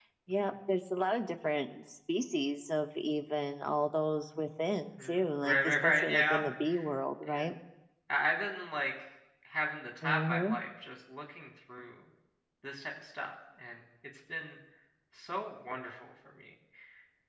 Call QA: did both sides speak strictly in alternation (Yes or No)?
No